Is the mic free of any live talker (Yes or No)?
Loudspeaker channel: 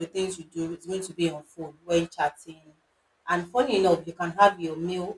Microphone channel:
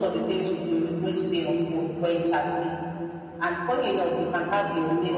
Yes